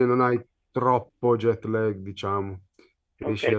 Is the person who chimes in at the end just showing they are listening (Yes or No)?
No